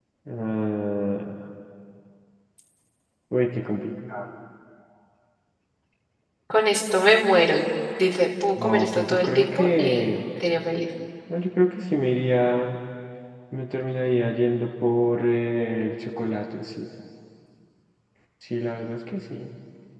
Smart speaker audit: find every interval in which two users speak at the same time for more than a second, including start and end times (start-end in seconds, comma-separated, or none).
8.6-10.1